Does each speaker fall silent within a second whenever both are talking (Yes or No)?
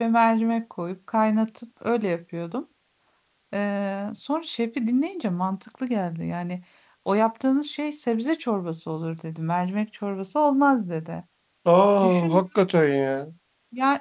Yes